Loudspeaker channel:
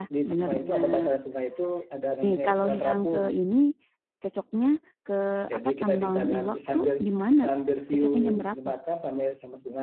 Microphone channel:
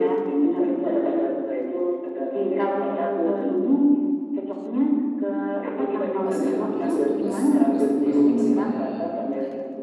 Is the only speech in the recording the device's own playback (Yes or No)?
No